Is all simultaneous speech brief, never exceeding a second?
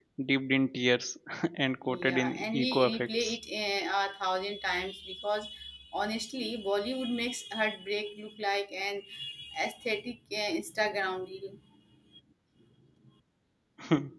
No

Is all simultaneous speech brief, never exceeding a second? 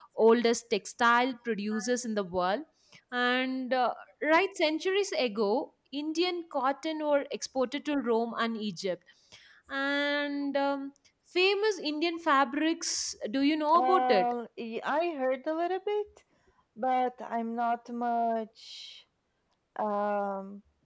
Yes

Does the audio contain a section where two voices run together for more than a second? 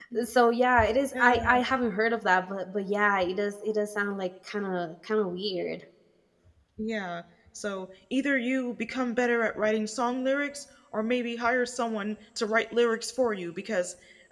No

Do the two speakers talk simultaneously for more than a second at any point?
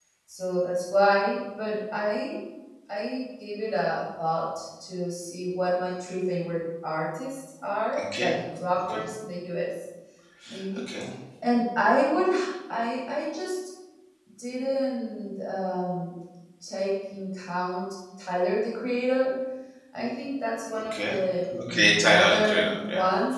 Yes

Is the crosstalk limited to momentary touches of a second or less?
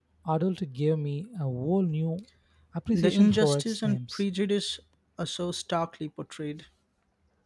No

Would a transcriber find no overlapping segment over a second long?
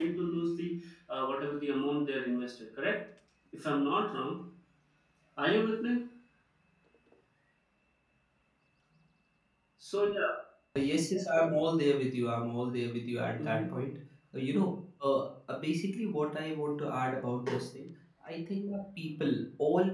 Yes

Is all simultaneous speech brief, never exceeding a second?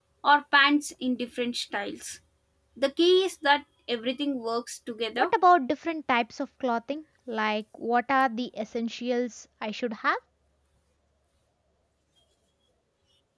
Yes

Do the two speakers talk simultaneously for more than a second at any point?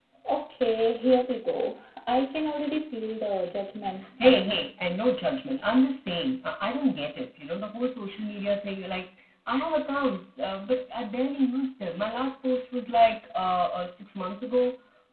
No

